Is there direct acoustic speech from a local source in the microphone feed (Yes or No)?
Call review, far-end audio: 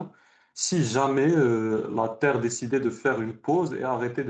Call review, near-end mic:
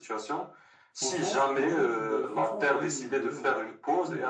Yes